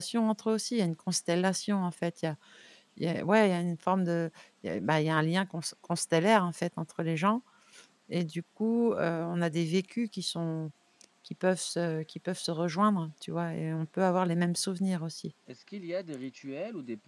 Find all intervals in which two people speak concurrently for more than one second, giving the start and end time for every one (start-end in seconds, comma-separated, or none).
none